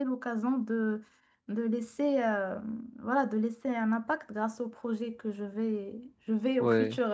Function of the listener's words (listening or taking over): listening